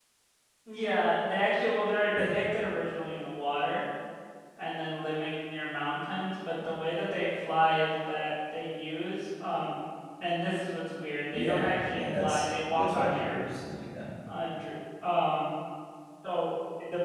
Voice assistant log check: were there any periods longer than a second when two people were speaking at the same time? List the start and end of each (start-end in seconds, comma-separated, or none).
11.3-13.4